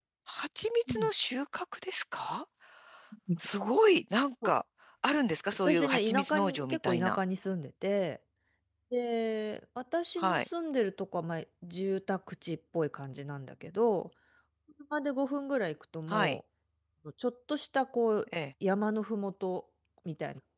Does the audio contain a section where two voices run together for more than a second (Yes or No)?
Yes